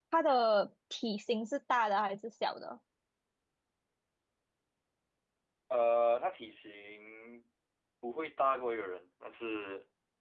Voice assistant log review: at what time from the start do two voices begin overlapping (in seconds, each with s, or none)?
none